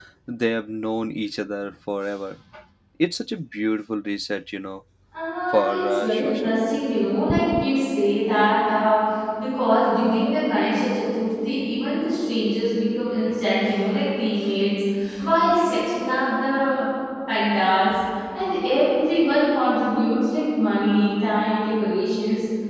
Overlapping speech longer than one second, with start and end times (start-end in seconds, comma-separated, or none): 5.5-6.8